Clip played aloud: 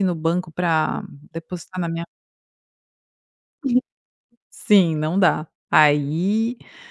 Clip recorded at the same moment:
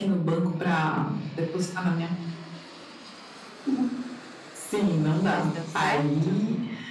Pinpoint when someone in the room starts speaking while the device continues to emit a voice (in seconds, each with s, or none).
5.2 s